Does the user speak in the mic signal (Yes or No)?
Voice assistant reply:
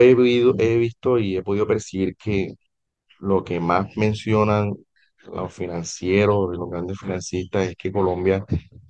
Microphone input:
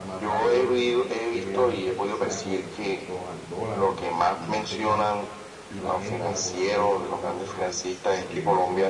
Yes